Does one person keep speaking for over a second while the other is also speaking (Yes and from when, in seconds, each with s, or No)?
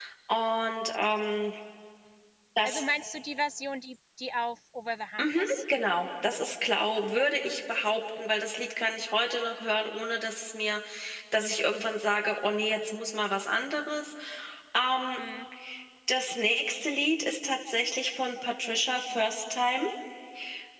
No